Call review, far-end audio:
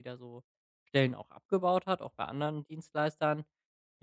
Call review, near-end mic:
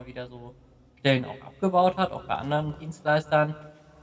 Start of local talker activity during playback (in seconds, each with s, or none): none